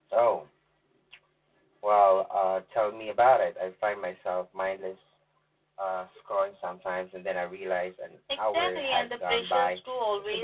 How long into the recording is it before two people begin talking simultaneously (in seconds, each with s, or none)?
8.3 s